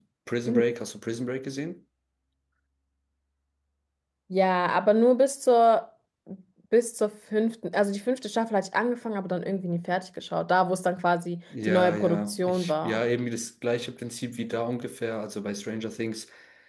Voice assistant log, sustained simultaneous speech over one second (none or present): present